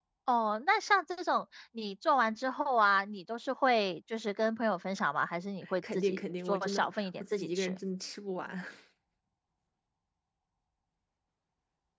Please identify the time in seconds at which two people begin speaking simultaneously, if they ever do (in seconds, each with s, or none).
5.9 s